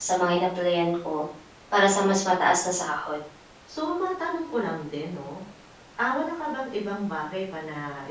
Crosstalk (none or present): none